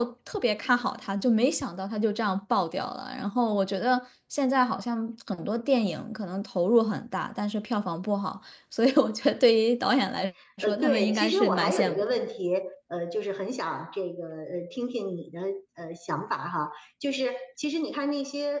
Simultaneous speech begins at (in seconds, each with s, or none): 10.6 s